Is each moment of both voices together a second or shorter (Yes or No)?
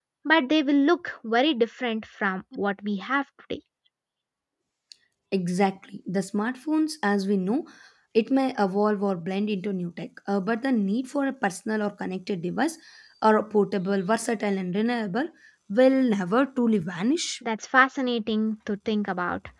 Yes